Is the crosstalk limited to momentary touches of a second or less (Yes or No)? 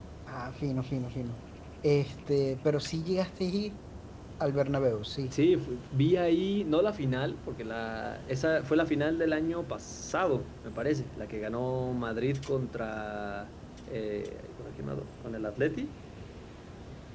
Yes